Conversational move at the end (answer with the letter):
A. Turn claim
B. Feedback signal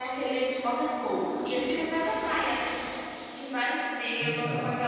B